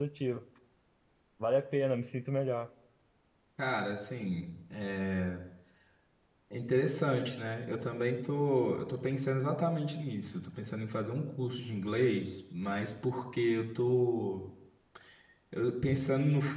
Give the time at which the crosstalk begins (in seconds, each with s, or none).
none